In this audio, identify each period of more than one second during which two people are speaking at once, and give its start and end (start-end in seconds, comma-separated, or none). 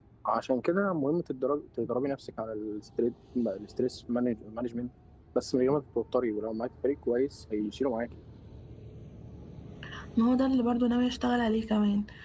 none